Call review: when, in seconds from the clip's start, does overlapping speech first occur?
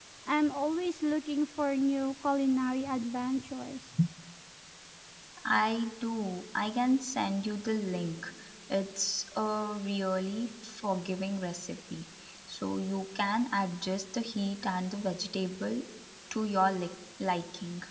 none

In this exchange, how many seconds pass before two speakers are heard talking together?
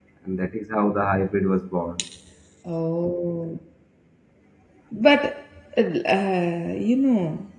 none

